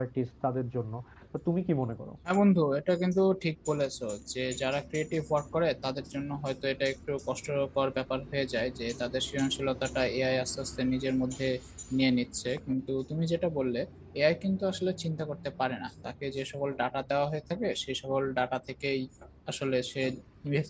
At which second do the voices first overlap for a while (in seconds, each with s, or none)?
none